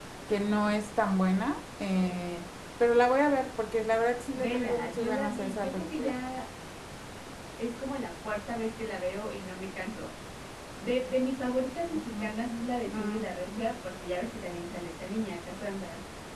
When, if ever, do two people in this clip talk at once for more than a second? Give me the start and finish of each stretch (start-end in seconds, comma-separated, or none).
4.4-6.1